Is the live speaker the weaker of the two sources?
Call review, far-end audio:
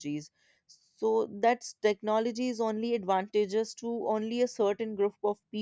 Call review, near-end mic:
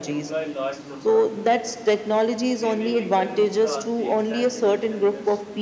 Yes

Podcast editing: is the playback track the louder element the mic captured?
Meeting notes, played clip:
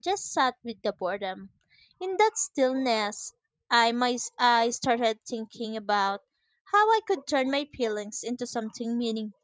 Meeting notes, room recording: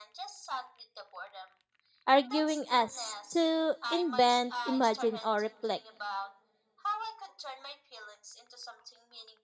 No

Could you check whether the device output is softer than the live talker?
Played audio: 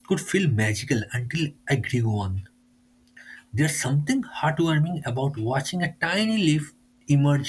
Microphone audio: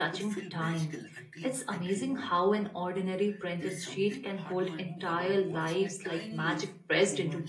Yes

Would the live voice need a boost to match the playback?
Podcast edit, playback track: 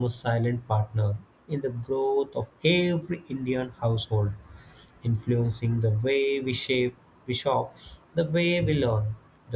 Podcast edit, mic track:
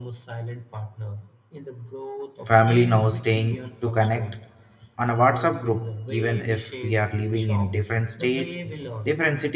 No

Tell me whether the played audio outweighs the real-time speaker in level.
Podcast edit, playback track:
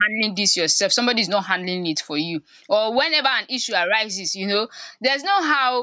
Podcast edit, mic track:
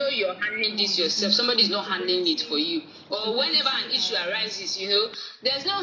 Yes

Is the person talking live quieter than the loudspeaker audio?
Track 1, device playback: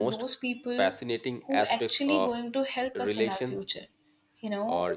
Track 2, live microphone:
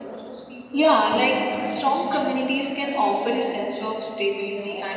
No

